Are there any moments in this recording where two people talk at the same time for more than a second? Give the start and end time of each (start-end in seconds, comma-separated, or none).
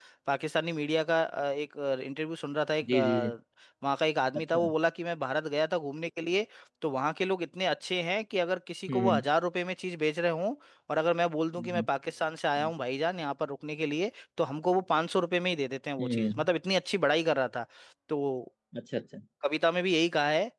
none